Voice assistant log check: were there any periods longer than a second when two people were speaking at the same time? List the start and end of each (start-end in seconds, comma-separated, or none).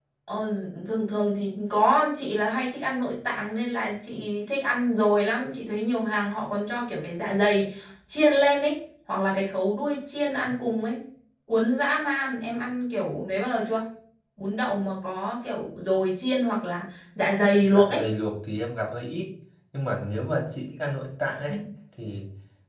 none